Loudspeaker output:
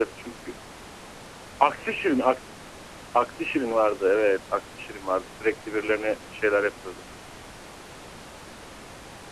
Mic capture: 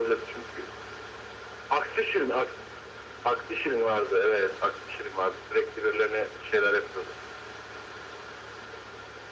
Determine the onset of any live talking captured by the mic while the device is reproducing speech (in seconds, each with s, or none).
none